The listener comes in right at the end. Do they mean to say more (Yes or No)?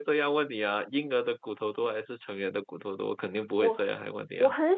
Yes